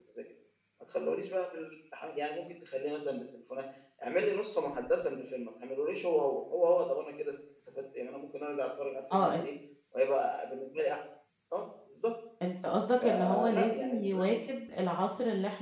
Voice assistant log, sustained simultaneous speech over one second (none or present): present